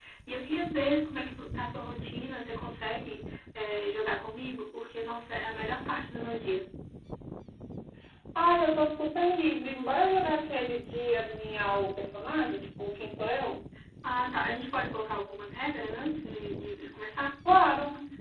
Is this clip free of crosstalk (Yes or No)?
Yes